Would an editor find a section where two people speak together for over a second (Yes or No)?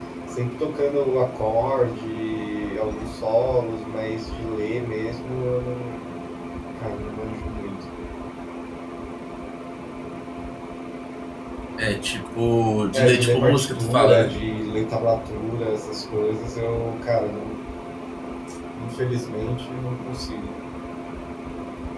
Yes